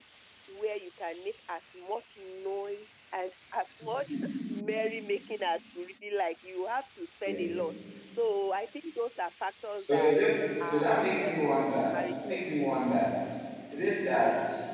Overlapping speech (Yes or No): Yes